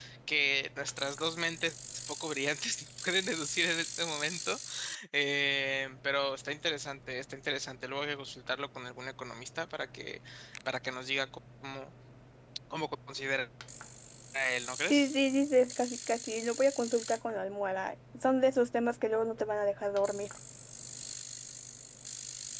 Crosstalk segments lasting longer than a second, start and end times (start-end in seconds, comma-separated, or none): none